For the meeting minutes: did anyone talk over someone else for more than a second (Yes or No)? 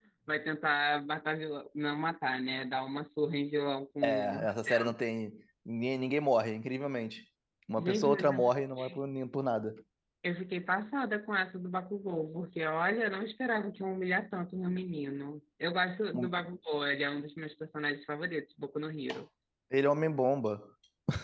Yes